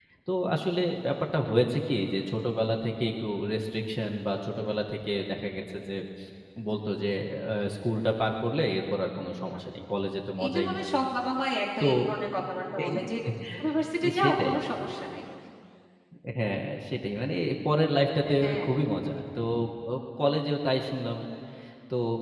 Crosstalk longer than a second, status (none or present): none